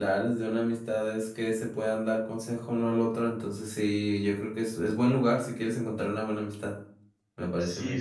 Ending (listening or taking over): taking over